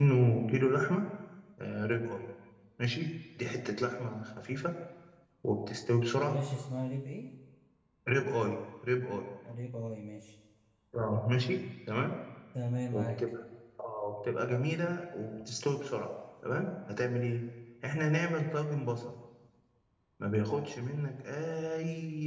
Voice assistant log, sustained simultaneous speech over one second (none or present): none